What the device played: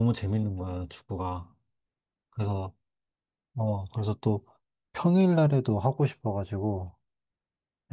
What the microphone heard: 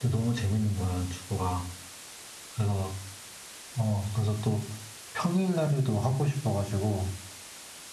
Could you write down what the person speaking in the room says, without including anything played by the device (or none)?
none